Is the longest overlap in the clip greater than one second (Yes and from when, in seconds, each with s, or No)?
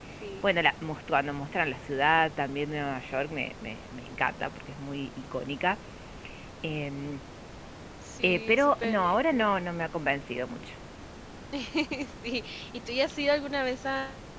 Yes, from 8.2 s